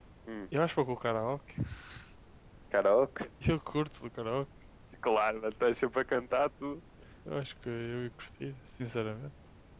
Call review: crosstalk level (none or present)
none